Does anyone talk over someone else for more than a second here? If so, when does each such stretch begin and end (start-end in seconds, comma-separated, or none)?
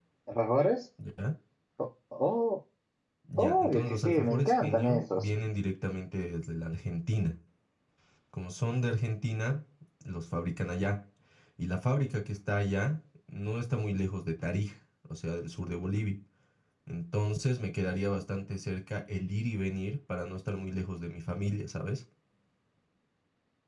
3.4-5.3